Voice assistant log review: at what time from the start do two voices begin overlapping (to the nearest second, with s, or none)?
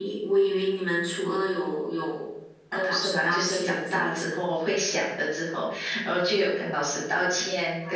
3 s